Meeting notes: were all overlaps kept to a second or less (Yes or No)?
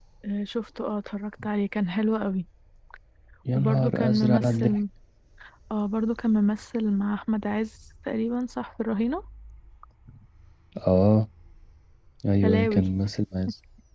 No